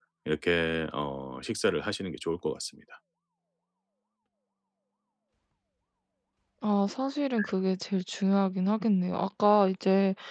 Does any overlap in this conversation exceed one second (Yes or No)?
No